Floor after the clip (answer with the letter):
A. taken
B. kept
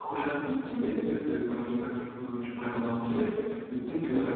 B